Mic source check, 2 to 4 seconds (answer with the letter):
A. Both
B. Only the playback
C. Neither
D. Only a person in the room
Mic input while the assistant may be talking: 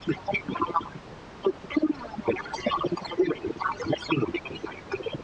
B